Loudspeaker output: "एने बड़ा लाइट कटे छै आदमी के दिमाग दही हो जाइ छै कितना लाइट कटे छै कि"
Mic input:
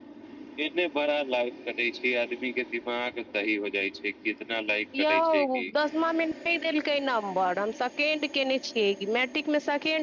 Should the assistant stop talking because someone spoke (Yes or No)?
Yes